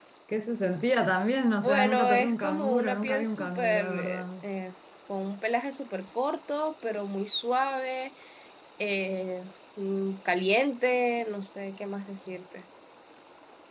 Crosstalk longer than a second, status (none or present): present